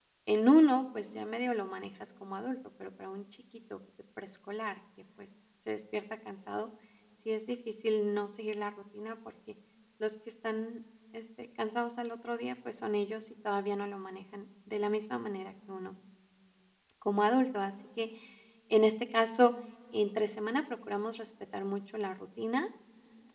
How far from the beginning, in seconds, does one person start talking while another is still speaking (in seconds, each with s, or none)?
none